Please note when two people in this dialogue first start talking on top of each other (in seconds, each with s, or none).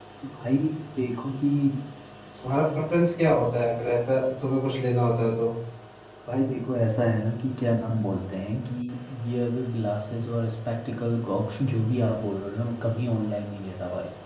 none